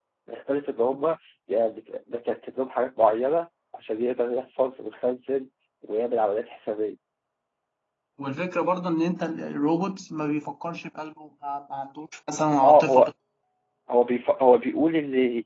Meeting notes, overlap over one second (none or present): none